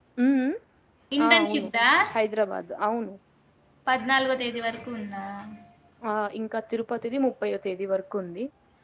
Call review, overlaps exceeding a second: none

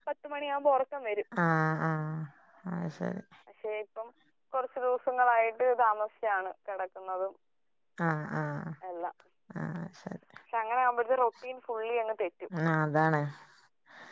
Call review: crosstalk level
none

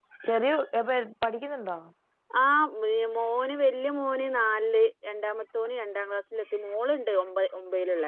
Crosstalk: none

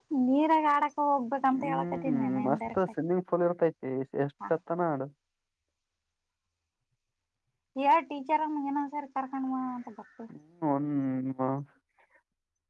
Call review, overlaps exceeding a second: present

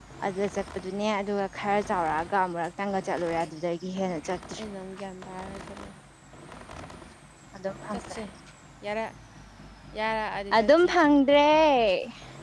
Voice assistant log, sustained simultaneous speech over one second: none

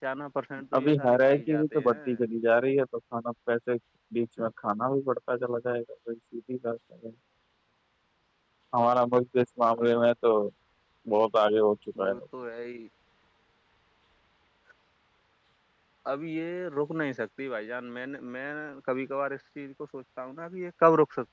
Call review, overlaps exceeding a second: present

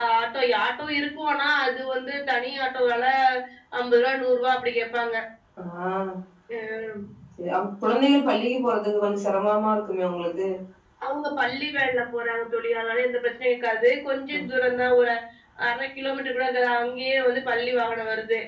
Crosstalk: none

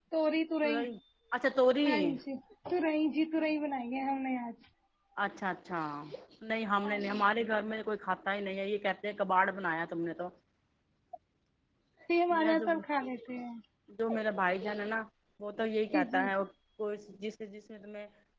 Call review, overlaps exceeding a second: none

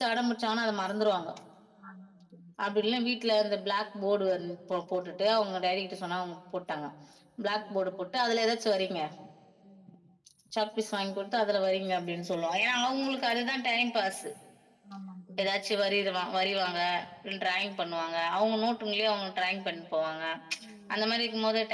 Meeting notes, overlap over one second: none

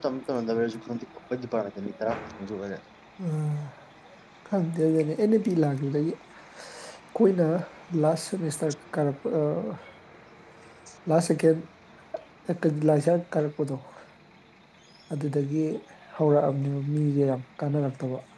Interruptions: none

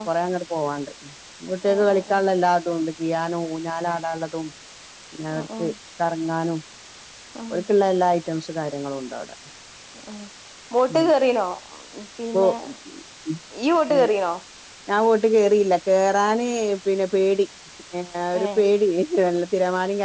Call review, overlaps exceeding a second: none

